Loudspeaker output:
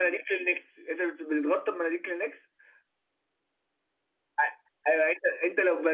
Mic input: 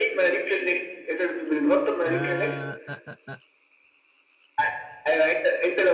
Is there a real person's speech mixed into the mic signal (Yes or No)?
Yes